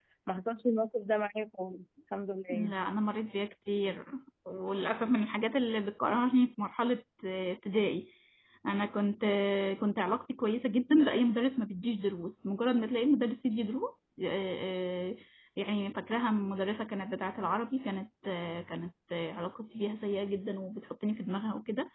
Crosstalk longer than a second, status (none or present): none